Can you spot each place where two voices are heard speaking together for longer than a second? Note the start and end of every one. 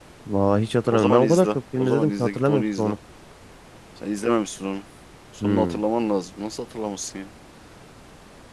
0.9-3.0

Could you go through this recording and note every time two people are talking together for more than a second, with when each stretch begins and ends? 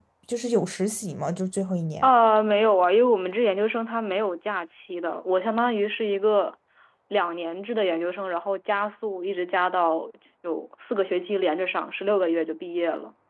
none

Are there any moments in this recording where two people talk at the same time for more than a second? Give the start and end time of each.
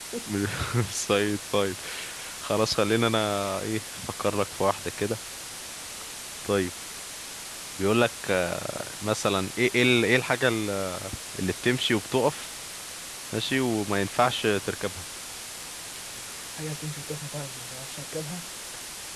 none

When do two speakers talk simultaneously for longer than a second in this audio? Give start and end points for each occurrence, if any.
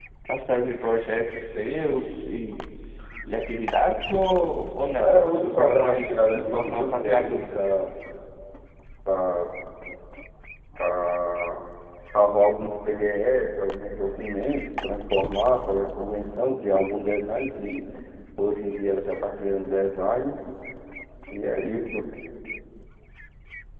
5.0-7.7

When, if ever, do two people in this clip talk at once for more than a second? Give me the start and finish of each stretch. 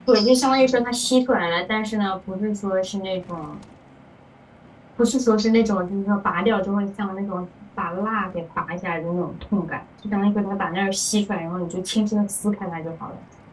none

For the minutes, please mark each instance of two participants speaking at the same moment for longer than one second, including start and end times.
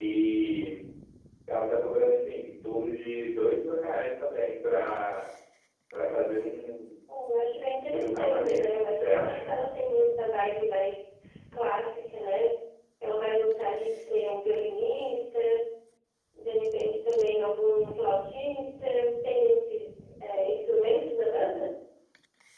7.9-9.5

